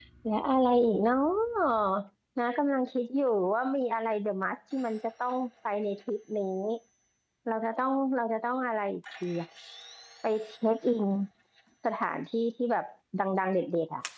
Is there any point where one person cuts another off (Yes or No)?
No